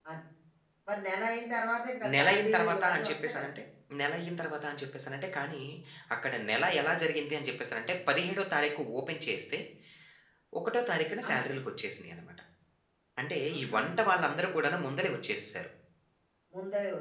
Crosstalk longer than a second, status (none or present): present